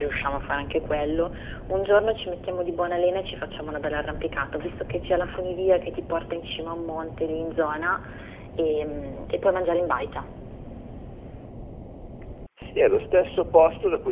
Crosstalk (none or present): none